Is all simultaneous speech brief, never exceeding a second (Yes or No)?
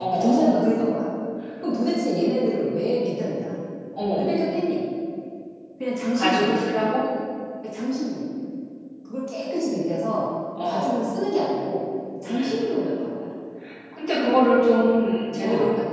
Yes